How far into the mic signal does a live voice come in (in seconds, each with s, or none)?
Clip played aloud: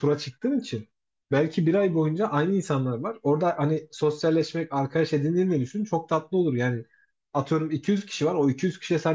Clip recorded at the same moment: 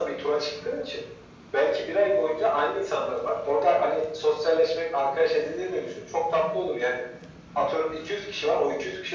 none